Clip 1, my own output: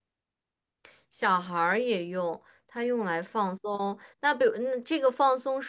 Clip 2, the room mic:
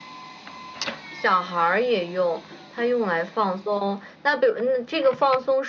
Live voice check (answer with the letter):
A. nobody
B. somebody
A